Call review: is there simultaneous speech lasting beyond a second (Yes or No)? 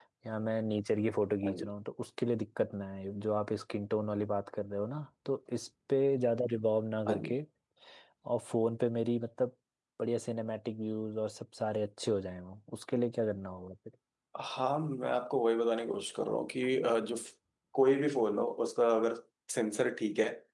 No